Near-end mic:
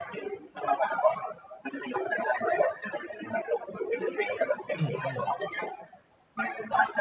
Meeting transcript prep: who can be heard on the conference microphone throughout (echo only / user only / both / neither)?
both